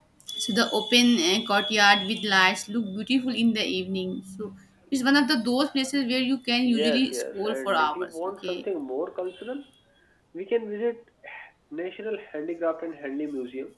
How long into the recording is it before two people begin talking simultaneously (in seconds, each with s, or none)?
6.7 s